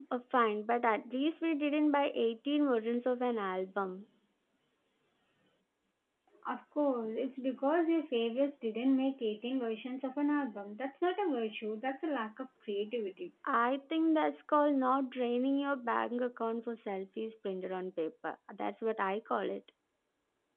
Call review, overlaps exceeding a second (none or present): none